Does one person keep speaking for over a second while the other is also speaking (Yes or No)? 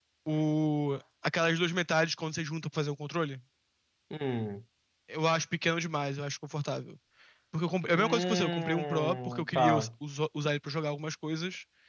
Yes